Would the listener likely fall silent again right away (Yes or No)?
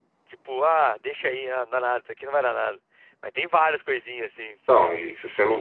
No